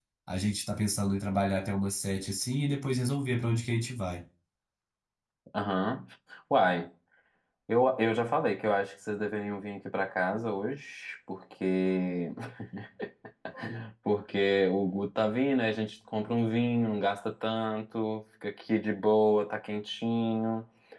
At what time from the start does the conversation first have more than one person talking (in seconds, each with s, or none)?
none